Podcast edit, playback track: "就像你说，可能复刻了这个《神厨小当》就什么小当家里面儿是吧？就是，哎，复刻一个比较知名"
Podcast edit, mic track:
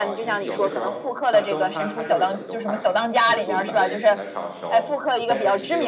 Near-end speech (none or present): present